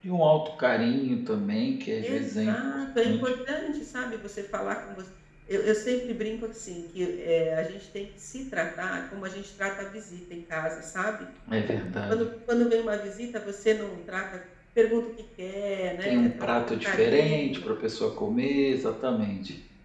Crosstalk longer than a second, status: present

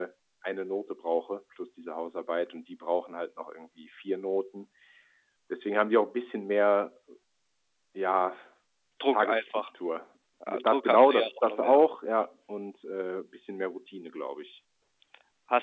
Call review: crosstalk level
present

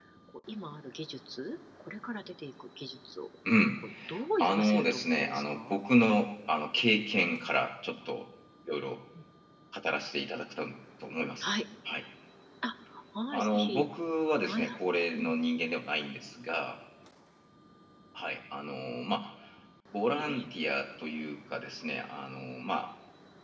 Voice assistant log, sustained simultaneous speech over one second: present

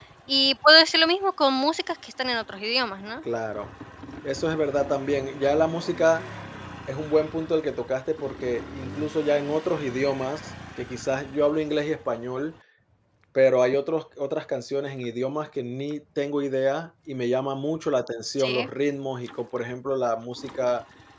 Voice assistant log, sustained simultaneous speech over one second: none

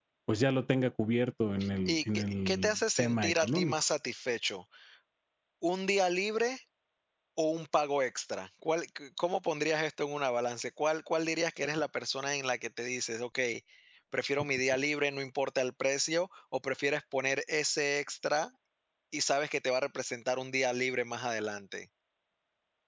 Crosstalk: present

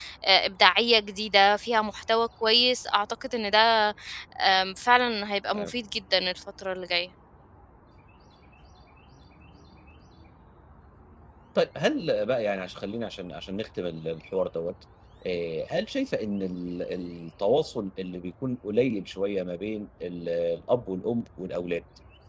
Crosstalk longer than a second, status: none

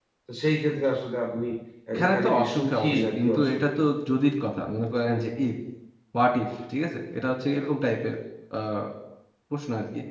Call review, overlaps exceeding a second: present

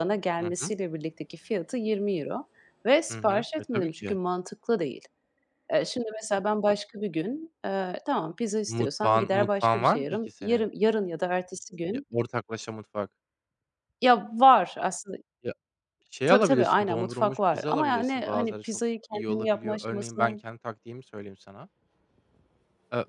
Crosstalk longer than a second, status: present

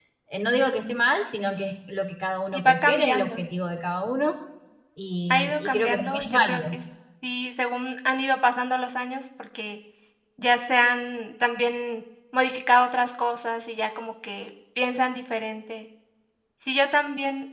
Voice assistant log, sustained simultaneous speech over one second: present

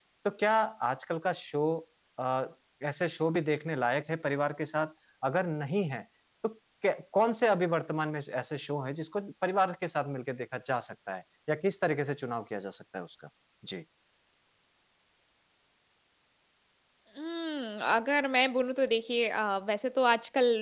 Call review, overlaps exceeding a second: none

